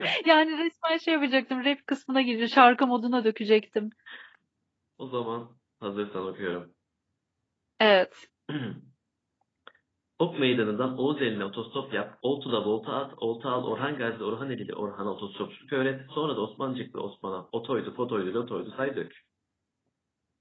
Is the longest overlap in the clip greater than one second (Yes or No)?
No